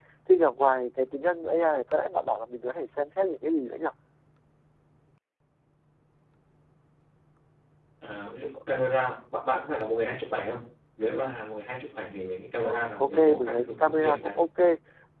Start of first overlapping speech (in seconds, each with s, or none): 12.6 s